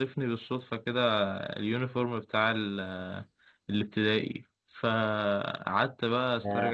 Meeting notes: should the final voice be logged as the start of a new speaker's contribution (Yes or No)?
No